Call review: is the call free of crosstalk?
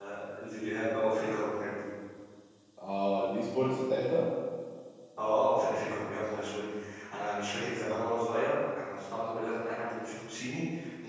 Yes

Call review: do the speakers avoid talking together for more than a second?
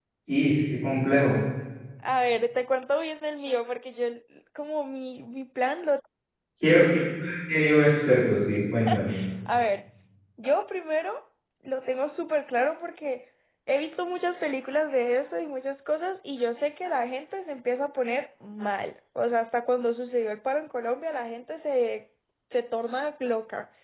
Yes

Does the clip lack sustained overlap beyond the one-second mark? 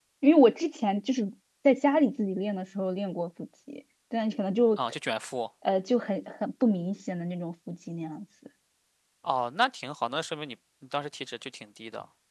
Yes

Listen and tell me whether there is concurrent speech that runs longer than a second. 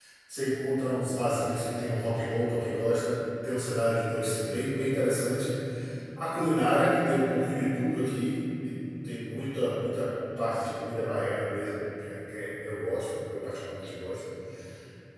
No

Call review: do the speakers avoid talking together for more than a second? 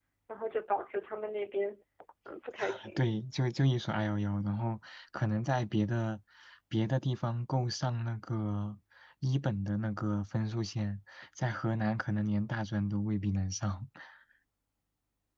Yes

